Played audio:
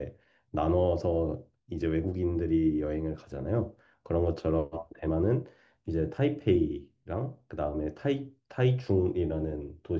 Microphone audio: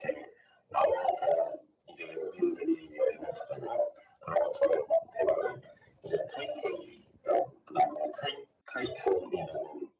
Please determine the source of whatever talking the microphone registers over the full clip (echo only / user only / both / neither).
echo only